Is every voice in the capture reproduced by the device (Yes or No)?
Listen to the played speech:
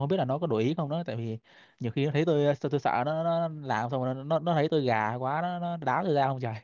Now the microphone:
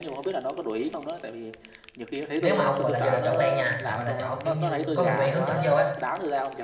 No